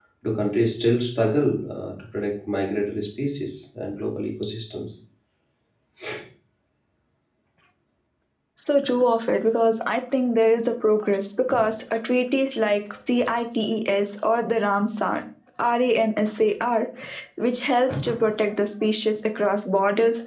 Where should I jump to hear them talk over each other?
none

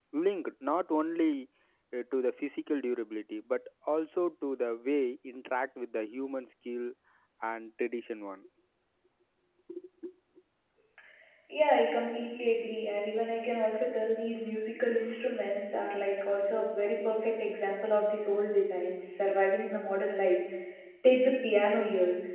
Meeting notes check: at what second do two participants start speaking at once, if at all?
none

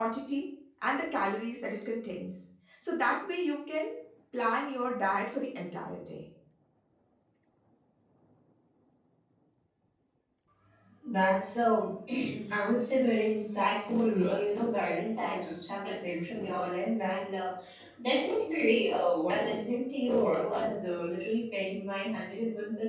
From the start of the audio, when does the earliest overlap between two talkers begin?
none

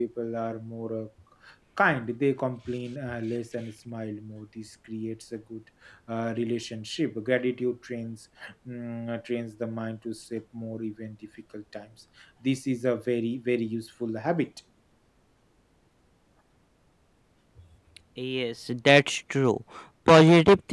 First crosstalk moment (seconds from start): none

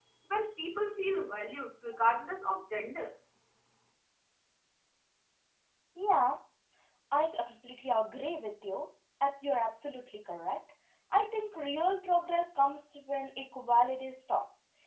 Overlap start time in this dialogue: none

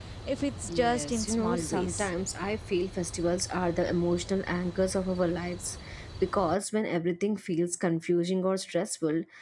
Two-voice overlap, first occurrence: 0.7 s

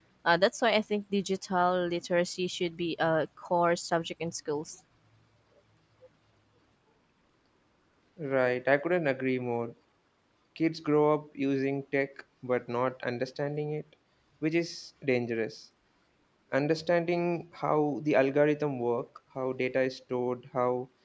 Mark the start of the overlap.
none

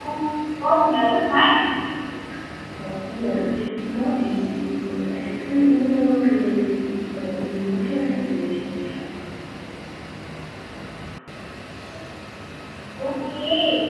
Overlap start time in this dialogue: none

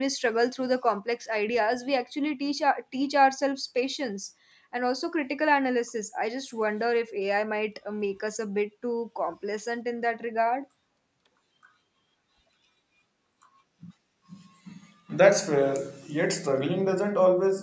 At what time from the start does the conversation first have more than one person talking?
none

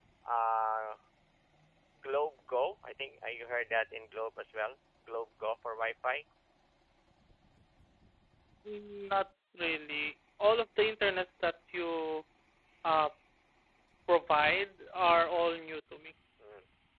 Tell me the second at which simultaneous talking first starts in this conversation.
none

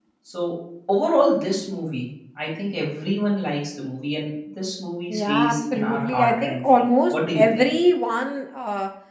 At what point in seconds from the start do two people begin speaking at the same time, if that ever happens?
5.1 s

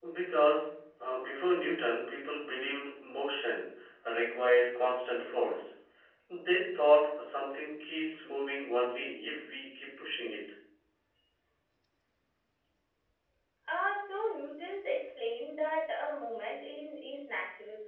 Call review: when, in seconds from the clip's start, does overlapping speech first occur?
none

